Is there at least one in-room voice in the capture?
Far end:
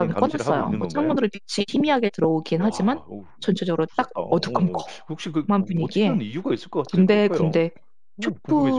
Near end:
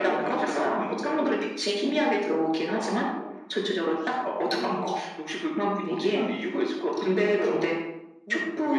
No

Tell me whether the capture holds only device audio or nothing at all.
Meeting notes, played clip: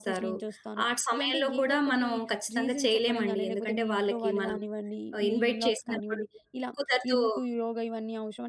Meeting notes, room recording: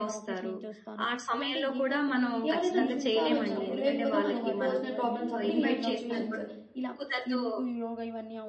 No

